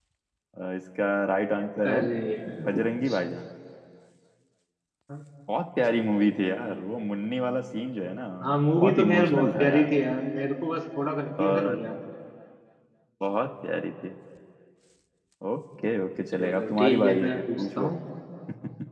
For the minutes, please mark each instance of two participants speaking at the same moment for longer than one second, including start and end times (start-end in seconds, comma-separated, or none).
8.4-10.0, 16.3-17.9